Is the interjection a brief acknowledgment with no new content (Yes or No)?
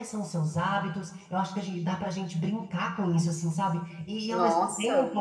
Yes